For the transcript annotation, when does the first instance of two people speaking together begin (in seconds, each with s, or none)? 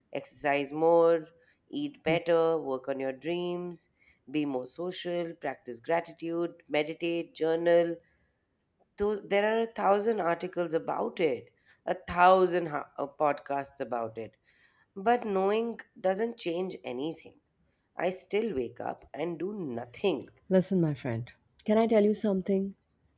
none